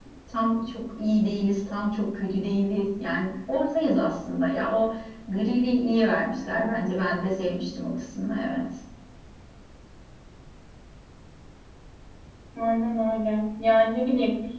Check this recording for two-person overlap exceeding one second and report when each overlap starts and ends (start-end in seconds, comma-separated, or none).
none